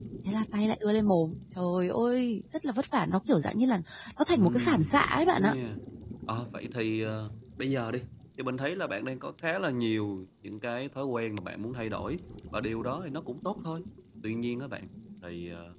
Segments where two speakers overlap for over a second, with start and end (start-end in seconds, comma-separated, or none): 4.3-5.5